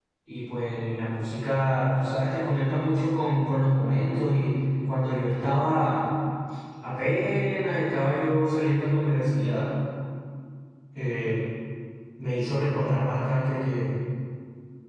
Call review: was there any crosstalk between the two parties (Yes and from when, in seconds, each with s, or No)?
No